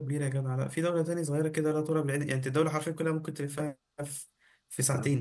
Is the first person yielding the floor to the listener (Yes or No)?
No